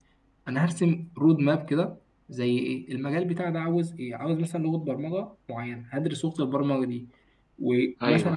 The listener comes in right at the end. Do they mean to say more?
No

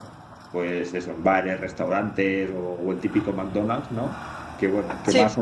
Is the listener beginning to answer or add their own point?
No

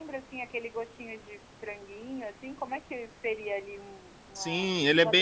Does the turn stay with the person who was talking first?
No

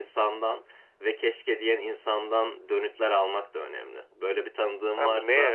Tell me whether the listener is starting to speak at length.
Yes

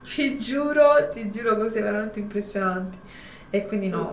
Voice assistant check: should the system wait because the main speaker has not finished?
Yes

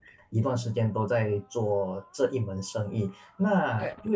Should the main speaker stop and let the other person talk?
No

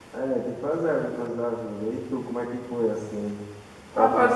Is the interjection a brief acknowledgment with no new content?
No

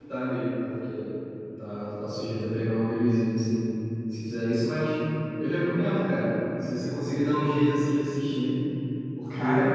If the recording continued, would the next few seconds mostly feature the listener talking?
No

